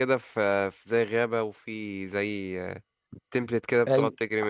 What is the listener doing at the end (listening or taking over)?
taking over